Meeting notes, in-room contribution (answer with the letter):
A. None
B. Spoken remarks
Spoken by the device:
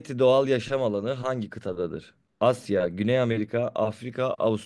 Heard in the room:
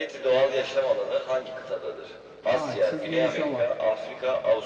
B